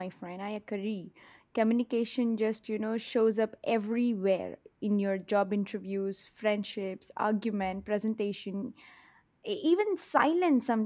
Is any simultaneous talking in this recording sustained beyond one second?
No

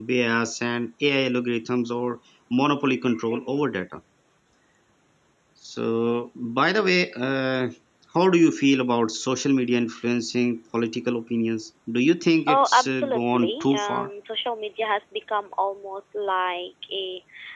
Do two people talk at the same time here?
Yes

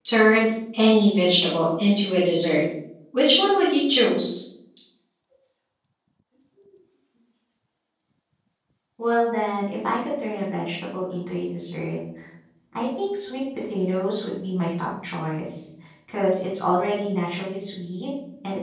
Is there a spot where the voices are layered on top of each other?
No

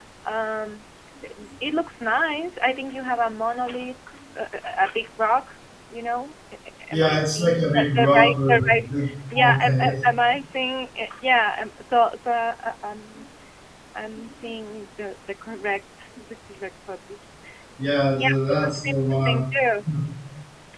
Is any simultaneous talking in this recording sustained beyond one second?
Yes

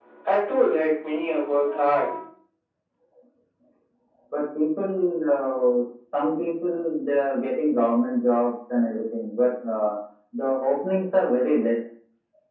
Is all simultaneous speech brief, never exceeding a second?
Yes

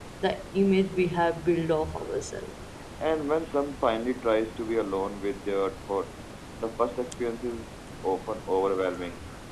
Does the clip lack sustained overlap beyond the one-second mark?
Yes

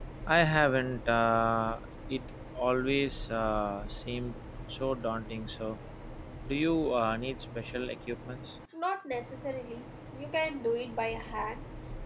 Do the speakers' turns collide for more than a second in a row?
No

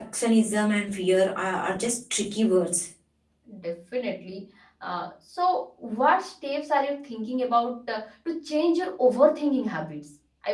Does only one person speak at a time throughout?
Yes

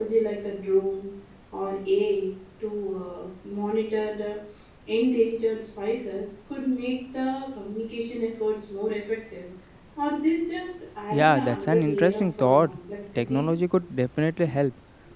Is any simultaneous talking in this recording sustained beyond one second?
Yes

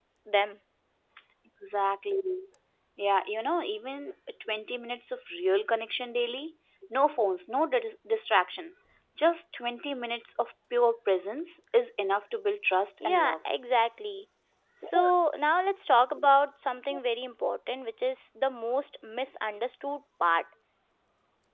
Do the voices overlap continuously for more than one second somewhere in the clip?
No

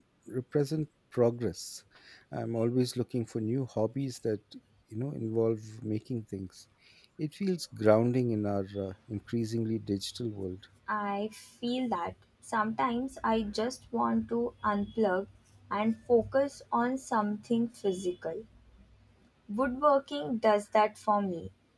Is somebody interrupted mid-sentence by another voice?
No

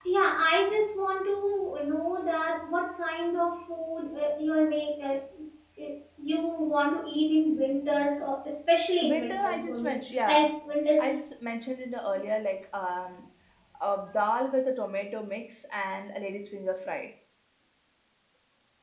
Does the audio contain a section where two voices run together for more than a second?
Yes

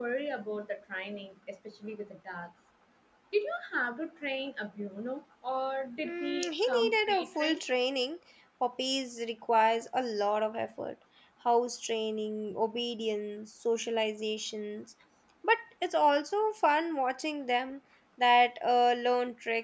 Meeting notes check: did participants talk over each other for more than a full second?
Yes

